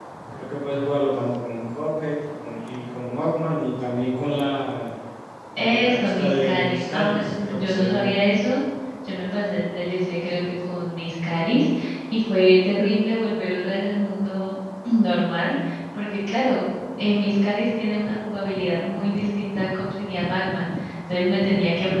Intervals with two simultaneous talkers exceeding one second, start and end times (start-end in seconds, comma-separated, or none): 5.7-8.1